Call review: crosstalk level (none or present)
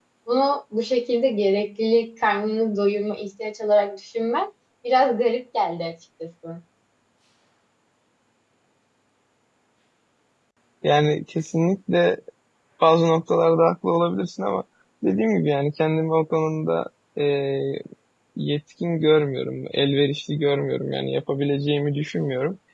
none